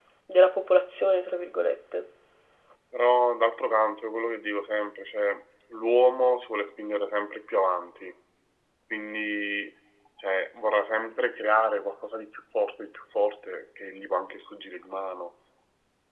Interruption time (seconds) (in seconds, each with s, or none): none